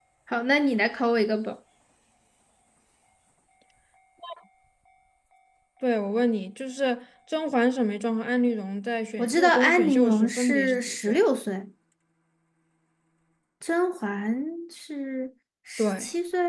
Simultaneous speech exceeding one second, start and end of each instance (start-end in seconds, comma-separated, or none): 9.2-11.2